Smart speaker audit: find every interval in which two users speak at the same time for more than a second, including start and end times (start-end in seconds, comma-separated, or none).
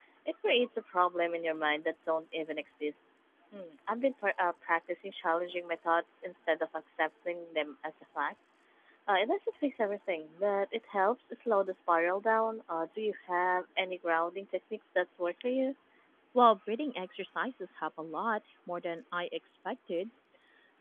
none